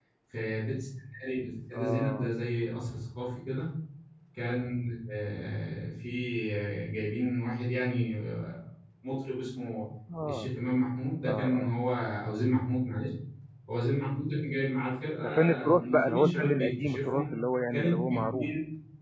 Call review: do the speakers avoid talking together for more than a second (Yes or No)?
No